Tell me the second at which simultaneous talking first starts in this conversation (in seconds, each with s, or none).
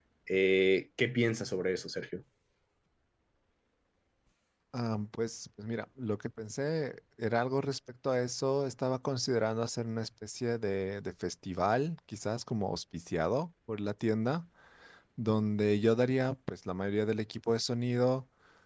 none